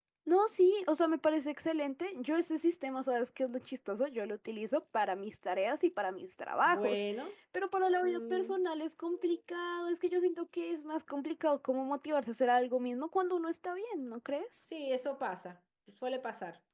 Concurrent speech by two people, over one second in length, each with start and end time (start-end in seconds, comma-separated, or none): none